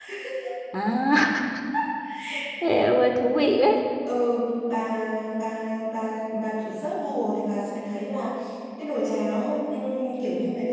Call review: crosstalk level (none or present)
none